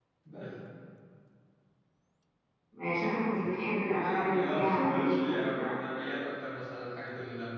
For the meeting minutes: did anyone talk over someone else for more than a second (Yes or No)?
Yes